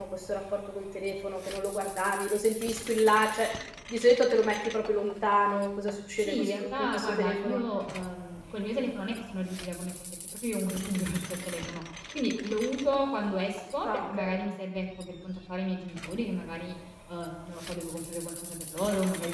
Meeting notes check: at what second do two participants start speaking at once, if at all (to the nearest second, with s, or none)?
6 s